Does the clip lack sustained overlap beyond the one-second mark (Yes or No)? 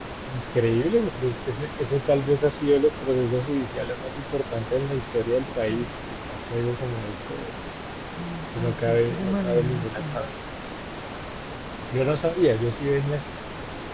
No